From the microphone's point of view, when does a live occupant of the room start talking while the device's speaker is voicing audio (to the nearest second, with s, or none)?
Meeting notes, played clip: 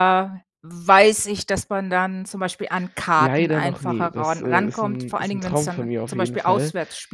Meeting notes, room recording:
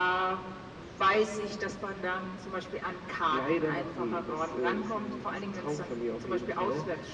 none